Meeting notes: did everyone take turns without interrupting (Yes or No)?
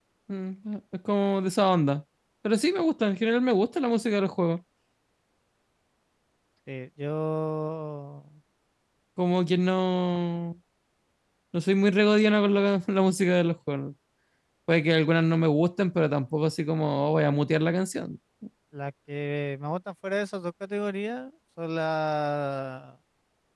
Yes